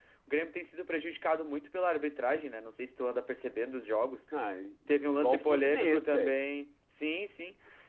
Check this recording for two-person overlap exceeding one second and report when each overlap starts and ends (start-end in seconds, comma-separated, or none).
5.1-6.4